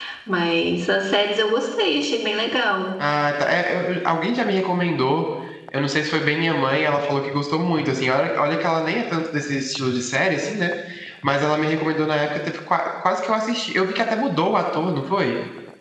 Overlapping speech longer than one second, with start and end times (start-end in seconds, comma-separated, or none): none